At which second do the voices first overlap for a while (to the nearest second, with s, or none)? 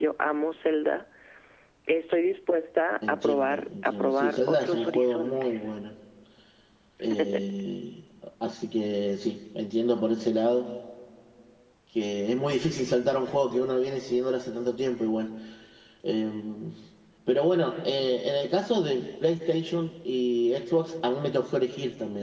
3 s